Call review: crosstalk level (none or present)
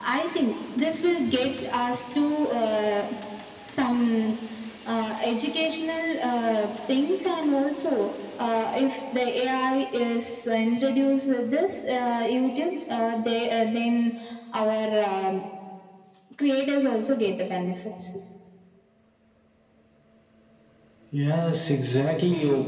none